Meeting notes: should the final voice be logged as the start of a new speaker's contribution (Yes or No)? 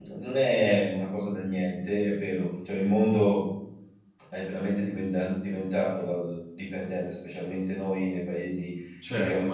Yes